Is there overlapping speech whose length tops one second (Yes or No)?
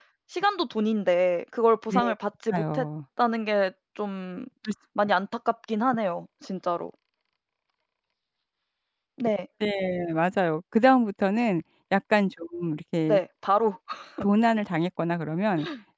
No